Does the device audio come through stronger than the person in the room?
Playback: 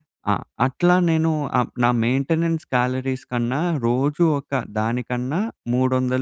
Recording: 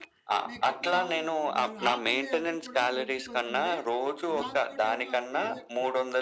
Yes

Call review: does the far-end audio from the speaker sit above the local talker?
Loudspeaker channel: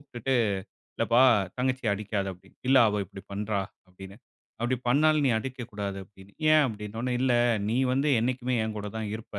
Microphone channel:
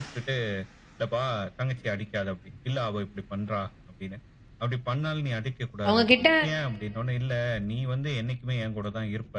No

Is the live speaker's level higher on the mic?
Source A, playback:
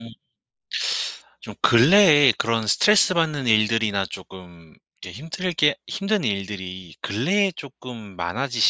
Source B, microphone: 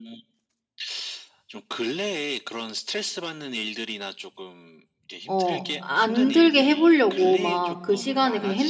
Yes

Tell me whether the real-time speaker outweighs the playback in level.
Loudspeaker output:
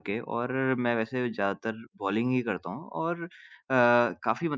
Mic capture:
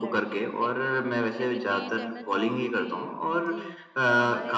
No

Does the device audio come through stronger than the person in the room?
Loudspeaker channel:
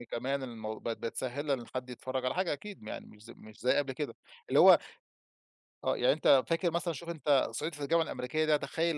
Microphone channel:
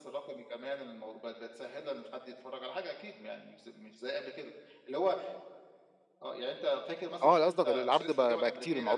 No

